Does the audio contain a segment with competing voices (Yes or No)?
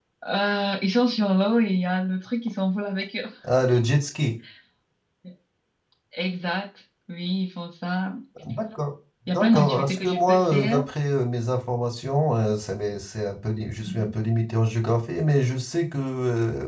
Yes